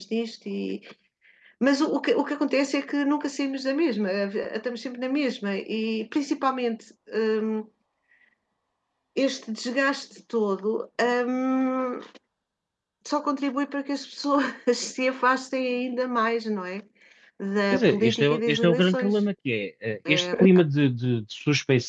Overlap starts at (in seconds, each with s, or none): 17.7 s